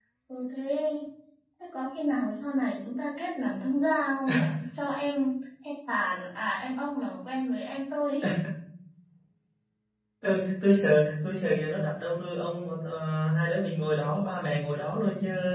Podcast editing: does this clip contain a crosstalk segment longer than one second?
No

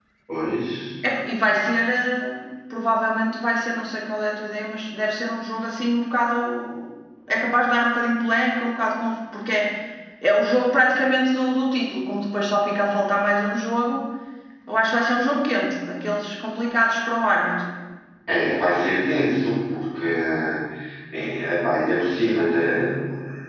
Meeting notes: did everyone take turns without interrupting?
Yes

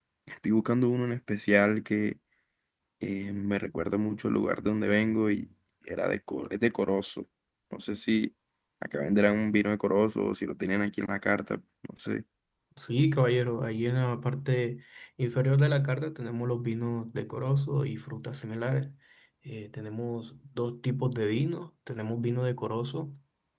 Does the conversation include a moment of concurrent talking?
No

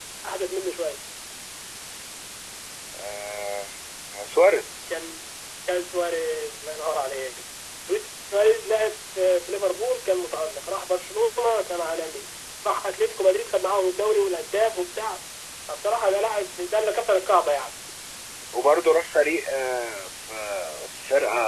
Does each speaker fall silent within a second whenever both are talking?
Yes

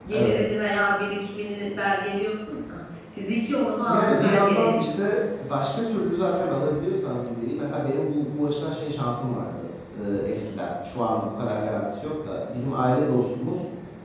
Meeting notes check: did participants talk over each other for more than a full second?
Yes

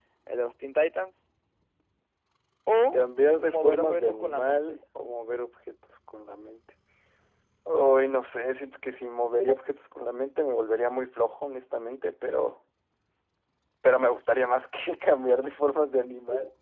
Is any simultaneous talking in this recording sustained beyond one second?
Yes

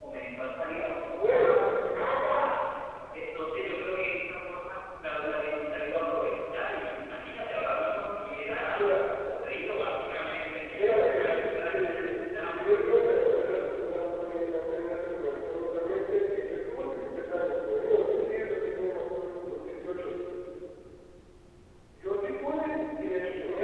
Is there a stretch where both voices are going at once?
Yes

